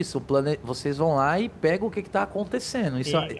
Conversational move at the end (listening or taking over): taking over